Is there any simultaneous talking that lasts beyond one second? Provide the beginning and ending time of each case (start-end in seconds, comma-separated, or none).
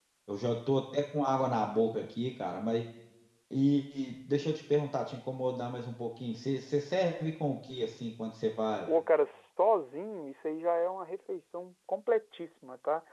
none